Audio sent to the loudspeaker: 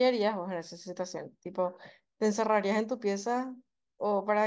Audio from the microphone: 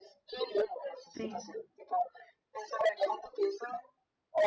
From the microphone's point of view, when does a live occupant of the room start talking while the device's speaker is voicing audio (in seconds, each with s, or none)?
1.1 s